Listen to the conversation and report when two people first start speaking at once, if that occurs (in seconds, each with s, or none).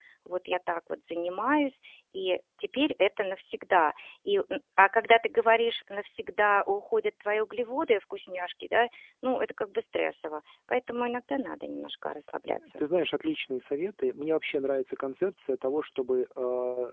none